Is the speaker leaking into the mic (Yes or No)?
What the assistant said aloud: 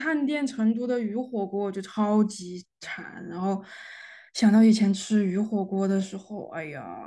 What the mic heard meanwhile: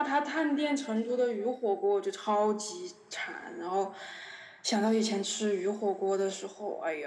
Yes